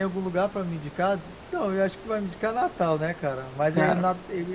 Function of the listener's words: listening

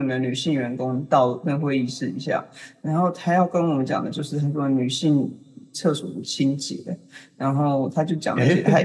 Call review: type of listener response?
listening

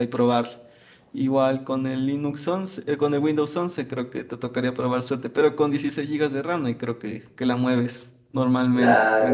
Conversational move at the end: taking over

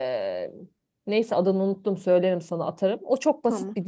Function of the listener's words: listening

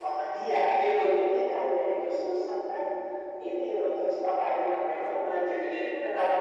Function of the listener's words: taking over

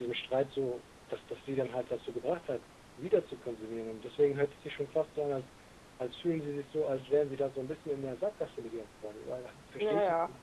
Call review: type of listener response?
taking over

